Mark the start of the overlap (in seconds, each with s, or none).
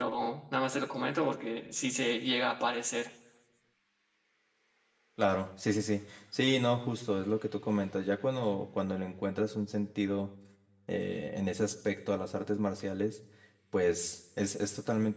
none